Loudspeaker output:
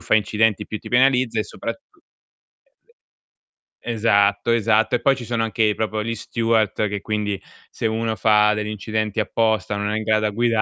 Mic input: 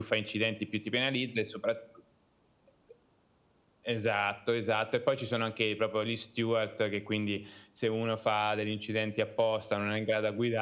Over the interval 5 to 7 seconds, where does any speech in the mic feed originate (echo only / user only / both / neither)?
echo only